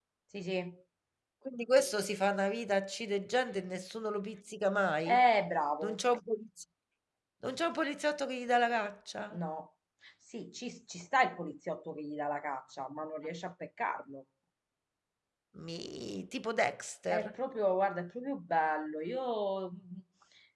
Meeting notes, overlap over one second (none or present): none